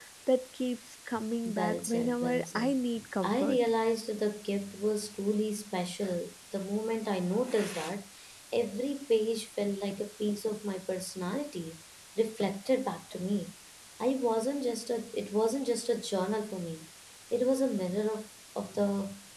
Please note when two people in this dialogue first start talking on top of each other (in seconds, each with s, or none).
1.6 s